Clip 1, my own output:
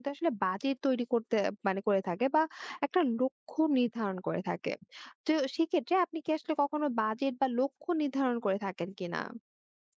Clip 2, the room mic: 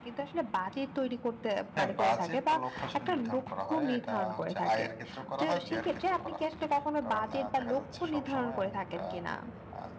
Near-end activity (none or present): present